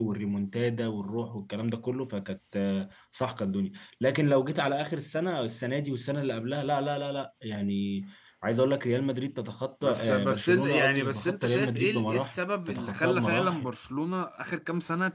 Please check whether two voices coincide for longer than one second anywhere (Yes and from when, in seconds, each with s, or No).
Yes, from 9.8 s